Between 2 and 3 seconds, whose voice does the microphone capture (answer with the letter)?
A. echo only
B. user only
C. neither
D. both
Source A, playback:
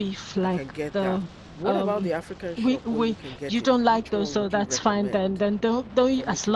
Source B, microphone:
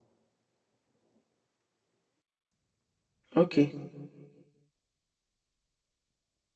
C